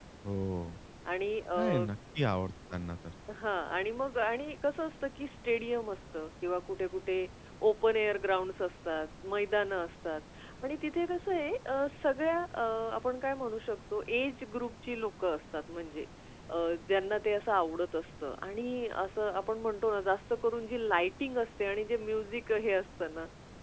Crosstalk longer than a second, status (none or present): none